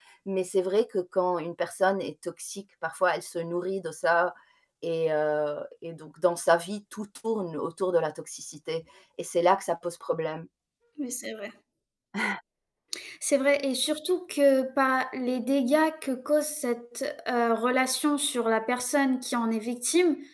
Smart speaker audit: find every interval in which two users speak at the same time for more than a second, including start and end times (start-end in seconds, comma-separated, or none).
none